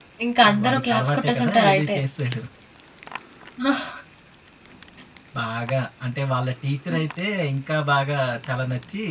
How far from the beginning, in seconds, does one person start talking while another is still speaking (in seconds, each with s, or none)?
0.6 s